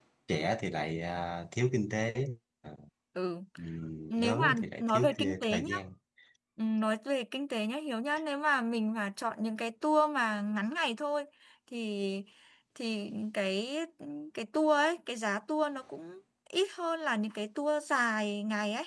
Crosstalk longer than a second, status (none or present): present